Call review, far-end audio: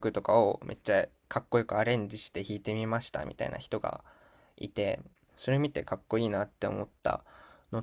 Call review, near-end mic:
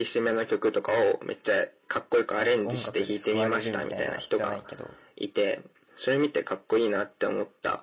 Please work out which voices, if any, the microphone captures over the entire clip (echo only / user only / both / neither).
both